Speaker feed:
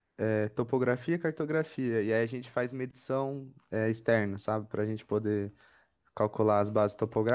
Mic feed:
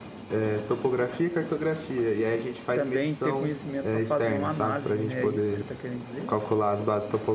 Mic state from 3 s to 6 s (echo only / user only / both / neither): both